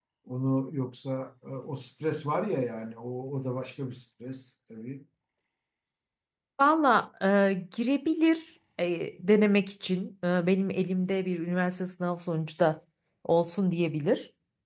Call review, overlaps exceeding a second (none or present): none